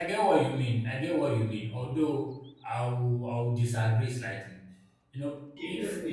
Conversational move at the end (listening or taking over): taking over